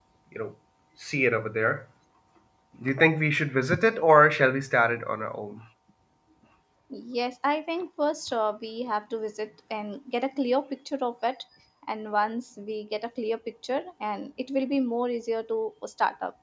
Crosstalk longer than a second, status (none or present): none